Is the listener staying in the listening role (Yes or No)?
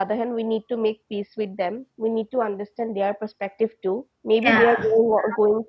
Yes